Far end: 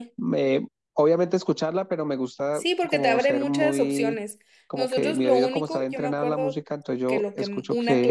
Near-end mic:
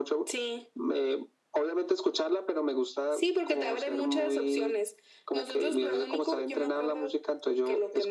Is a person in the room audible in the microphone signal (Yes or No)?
No